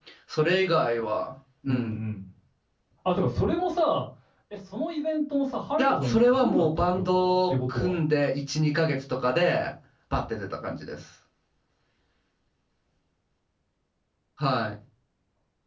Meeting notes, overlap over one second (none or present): present